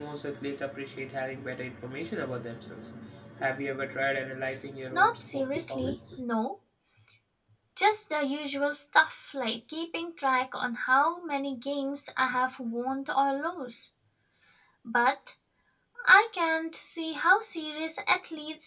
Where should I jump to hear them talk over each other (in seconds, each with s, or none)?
4.9 s